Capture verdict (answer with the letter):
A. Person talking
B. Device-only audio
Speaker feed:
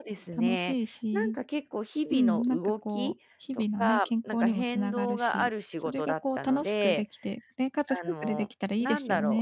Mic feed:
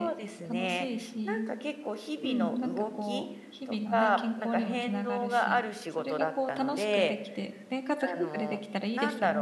B